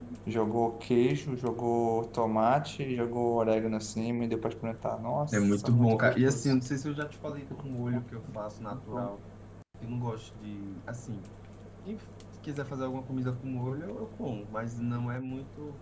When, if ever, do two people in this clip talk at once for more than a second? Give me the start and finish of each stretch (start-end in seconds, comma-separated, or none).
5.3-6.5